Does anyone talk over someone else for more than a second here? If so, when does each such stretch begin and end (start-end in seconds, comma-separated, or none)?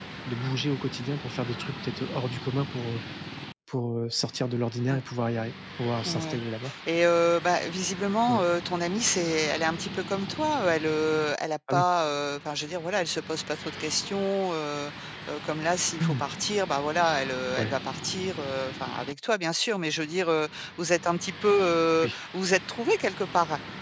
none